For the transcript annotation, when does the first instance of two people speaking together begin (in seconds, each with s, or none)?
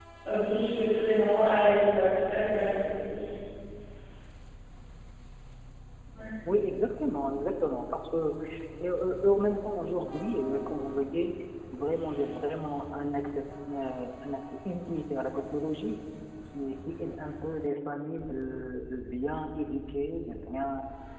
none